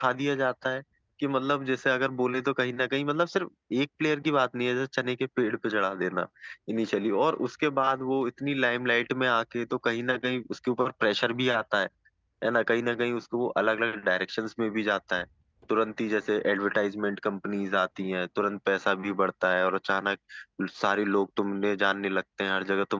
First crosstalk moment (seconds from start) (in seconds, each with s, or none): none